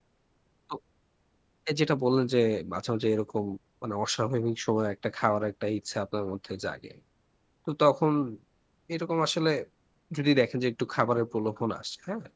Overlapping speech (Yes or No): No